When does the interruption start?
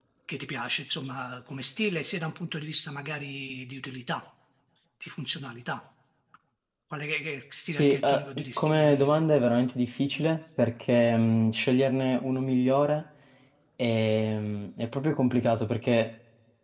8 s

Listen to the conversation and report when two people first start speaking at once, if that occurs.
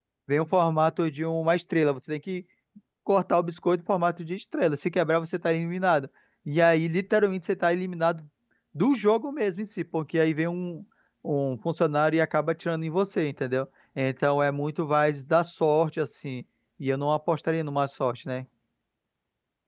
none

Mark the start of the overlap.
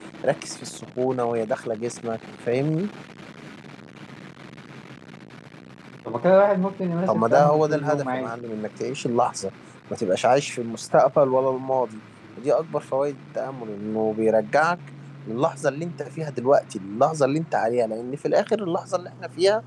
7 s

